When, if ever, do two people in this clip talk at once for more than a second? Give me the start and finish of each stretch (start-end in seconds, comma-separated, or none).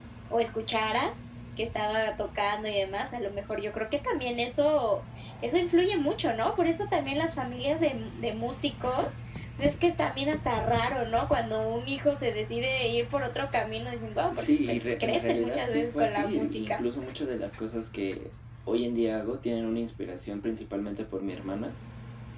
14.3-16.8